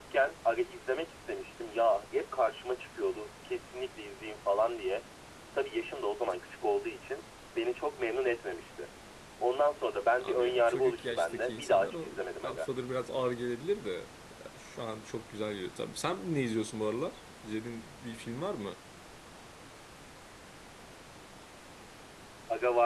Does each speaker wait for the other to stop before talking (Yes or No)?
No